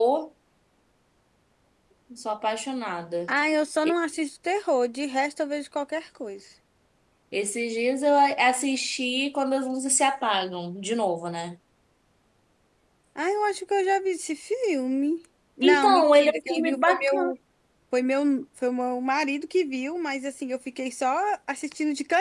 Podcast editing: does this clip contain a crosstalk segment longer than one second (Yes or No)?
Yes